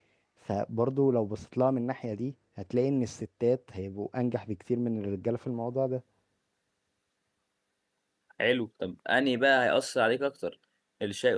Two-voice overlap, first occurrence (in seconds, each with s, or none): none